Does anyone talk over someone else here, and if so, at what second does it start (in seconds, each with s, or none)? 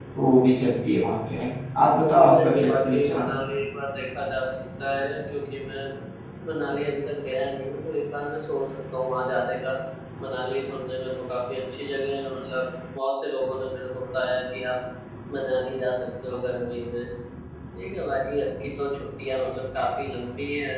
1.9 s